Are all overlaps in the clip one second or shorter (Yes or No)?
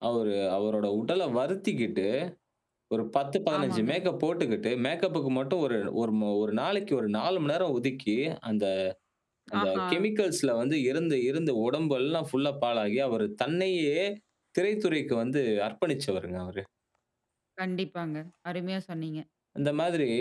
Yes